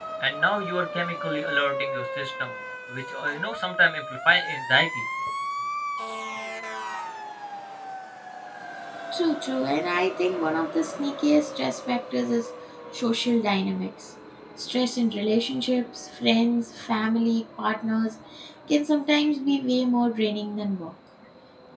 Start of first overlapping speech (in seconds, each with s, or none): none